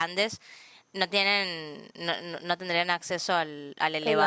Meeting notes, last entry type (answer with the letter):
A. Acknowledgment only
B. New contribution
A